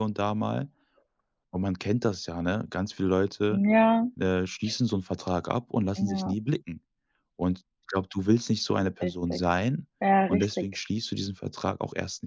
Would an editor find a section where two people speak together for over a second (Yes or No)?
No